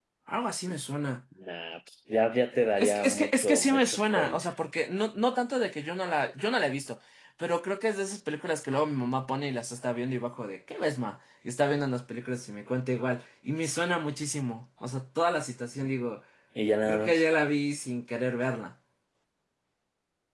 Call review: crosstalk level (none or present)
present